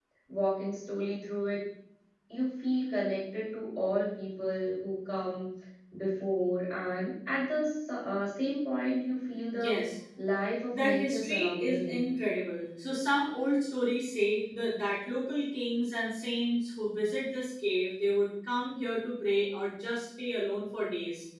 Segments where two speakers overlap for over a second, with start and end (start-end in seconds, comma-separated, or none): 10.7-12.0